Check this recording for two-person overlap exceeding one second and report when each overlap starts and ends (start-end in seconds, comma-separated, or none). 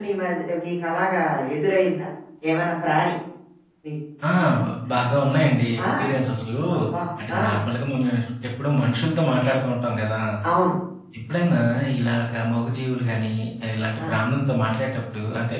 none